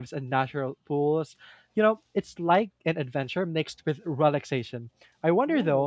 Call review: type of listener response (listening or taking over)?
listening